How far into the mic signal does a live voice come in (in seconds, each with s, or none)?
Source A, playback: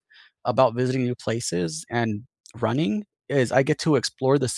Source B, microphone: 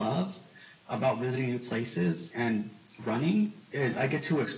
none